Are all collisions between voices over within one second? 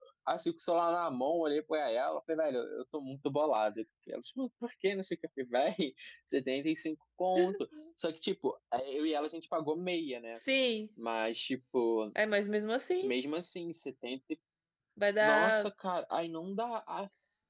Yes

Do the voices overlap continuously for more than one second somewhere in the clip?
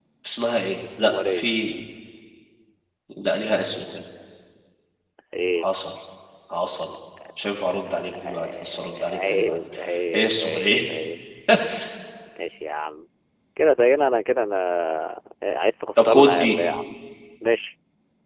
Yes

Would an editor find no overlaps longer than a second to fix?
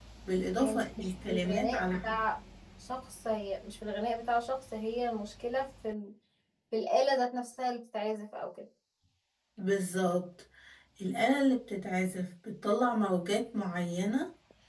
No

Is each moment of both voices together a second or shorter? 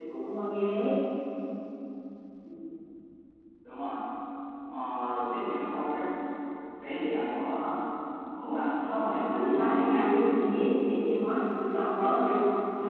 No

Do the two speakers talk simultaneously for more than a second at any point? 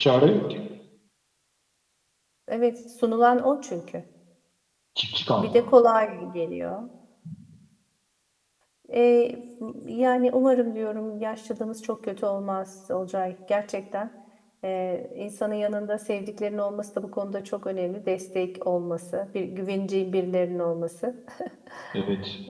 No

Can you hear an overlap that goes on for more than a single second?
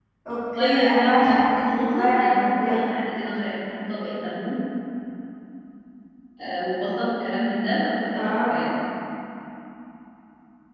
Yes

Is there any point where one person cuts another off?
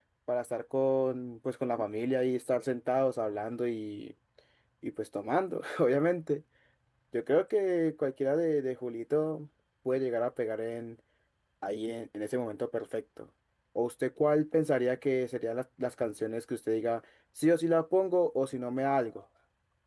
No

